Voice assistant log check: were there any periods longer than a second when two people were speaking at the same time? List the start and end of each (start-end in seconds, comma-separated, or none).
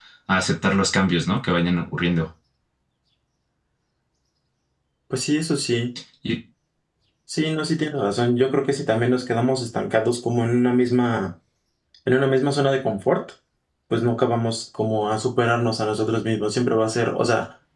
none